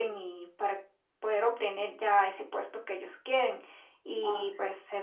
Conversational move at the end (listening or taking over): listening